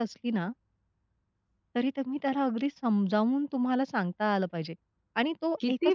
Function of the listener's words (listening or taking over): taking over